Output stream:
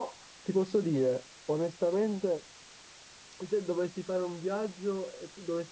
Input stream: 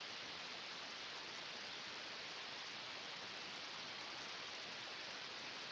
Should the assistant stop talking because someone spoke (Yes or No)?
No